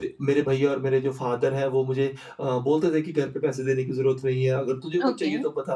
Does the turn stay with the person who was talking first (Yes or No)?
Yes